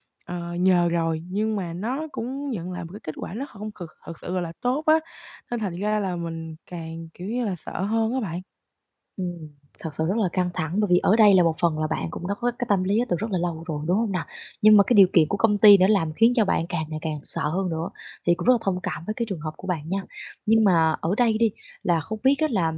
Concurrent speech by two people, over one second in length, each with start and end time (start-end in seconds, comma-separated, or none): none